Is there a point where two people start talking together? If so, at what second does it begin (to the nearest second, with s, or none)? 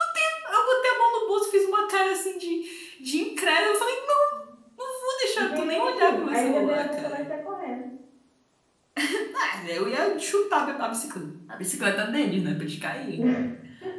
5 s